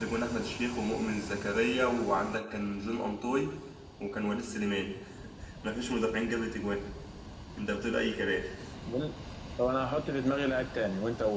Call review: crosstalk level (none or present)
none